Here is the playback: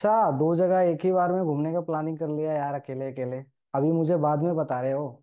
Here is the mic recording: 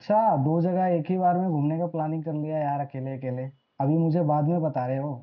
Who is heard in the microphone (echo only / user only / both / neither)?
echo only